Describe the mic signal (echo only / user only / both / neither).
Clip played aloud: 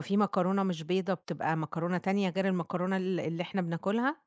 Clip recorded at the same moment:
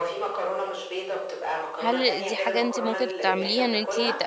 both